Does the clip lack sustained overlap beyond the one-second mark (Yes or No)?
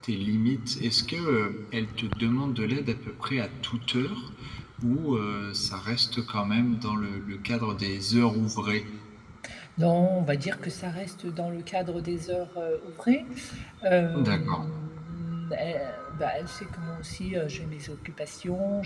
Yes